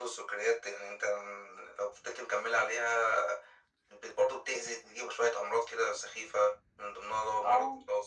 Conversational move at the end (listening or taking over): listening